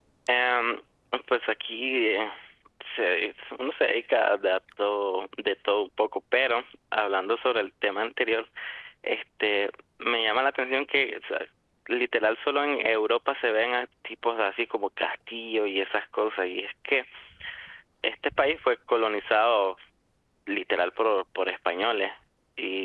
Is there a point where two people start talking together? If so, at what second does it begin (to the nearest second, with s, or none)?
none